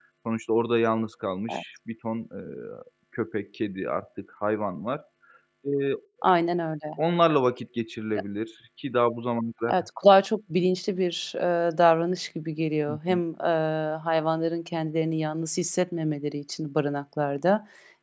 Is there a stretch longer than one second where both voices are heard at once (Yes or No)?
No